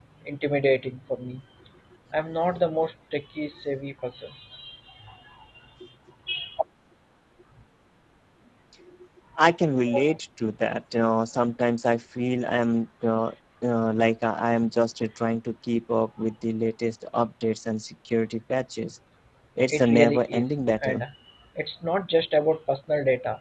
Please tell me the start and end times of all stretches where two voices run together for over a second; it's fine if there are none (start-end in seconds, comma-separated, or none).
19.7-21.0